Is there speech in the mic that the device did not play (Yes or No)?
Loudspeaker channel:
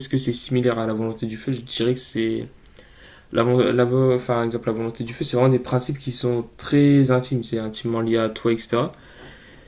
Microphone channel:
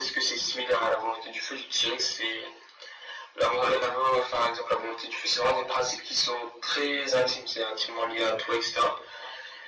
No